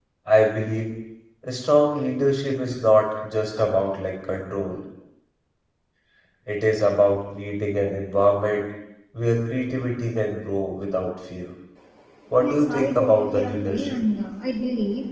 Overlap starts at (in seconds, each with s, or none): 12.4 s